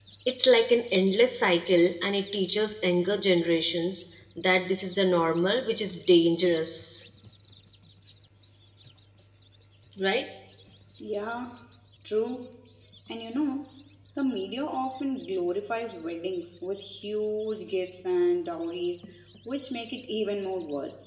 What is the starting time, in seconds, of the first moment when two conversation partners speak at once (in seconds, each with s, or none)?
none